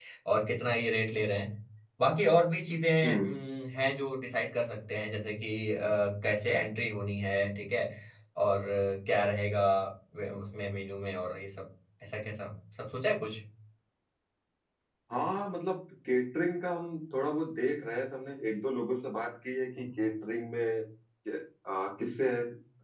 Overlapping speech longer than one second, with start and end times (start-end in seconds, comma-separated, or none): none